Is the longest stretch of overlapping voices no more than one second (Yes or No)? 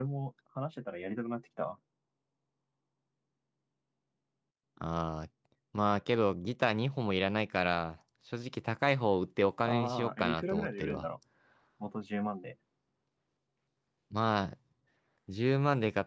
No